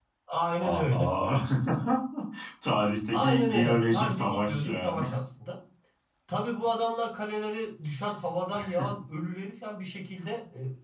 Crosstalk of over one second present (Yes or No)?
Yes